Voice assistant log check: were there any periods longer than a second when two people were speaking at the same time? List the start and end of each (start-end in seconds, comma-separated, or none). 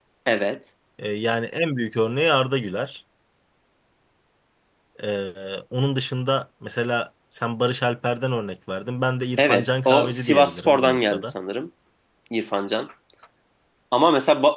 9.4-11.3